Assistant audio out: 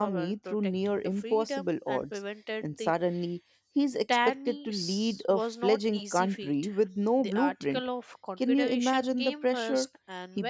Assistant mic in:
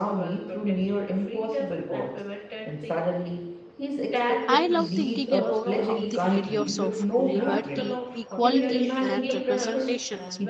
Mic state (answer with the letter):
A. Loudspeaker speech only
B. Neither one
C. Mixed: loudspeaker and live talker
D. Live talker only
C